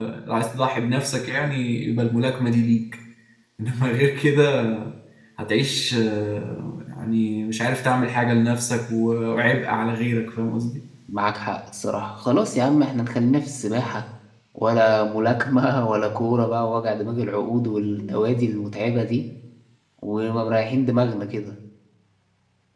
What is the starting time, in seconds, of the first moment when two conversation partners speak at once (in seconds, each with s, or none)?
none